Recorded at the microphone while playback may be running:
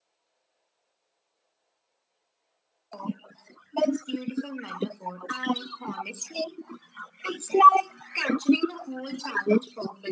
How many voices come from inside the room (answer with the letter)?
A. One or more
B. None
B